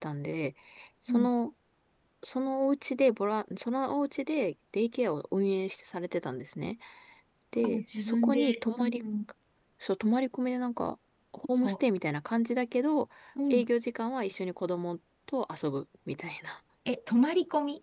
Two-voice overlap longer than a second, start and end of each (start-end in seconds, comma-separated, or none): 7.6-9.0